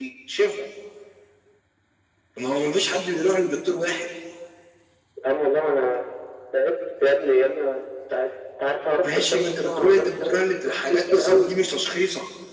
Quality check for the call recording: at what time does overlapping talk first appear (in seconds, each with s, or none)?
9.0 s